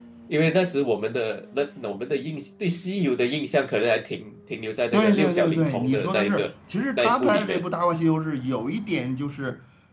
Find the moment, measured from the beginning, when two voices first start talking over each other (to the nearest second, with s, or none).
5 s